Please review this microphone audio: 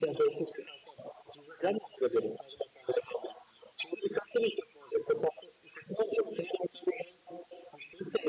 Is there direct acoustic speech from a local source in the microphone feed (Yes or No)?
No